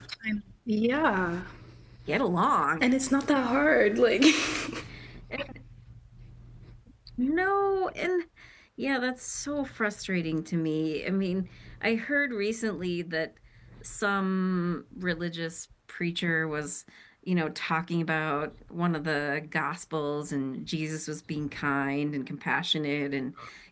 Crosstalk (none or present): none